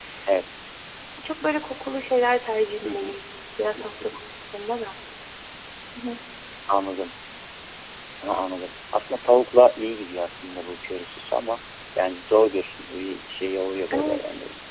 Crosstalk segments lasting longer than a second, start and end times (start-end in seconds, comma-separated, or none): none